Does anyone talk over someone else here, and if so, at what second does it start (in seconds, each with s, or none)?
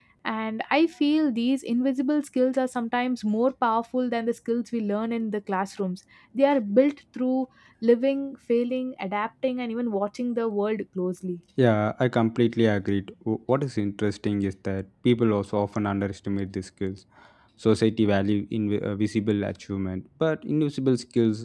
none